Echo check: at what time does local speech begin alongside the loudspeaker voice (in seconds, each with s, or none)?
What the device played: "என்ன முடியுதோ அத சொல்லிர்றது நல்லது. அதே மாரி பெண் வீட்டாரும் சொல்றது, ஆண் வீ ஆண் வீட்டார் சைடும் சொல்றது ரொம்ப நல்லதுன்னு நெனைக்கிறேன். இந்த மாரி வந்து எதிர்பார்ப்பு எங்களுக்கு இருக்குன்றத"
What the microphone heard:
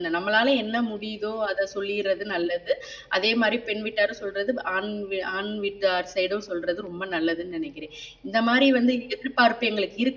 none